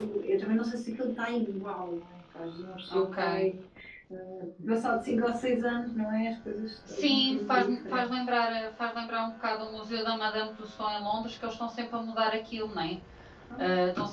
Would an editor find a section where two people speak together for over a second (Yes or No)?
Yes